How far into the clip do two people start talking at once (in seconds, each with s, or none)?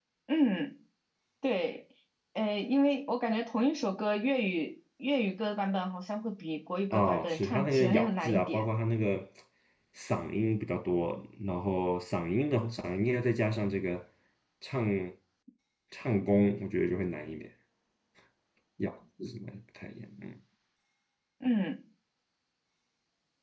6.9 s